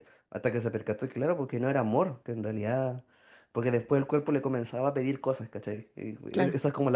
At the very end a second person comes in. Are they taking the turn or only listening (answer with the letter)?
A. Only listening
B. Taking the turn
A